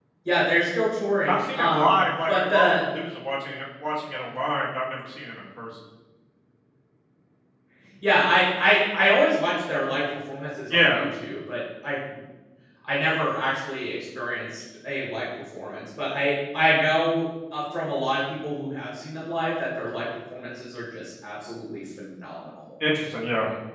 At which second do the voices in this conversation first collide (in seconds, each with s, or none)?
1.3 s